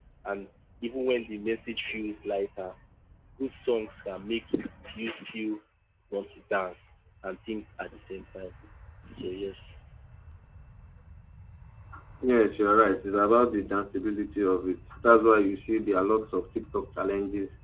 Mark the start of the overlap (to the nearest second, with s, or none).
none